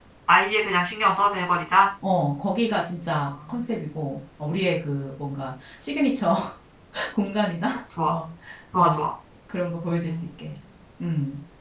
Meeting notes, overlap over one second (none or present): none